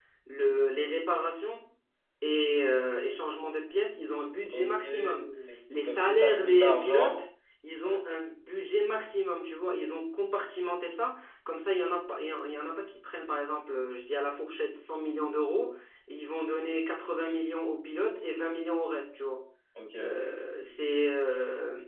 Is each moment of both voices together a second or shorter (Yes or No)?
No